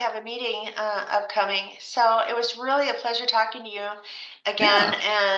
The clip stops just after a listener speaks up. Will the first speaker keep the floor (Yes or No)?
Yes